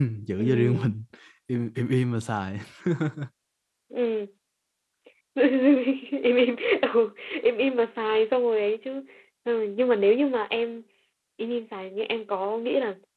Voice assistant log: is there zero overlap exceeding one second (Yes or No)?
Yes